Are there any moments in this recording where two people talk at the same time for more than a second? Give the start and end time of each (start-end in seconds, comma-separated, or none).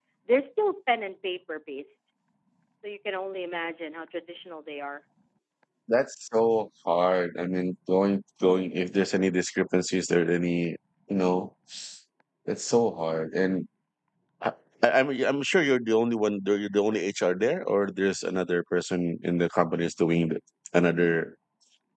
none